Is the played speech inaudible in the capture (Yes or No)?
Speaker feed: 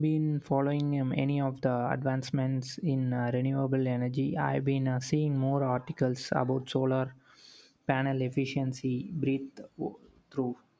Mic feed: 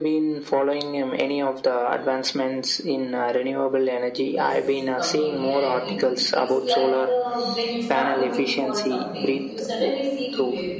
No